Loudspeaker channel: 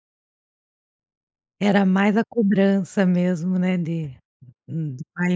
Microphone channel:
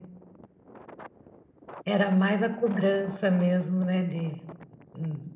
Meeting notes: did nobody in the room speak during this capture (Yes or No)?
Yes